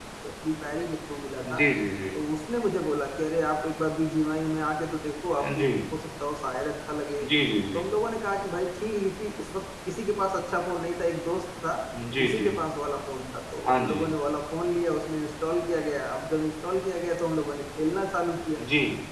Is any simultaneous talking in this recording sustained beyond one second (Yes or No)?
No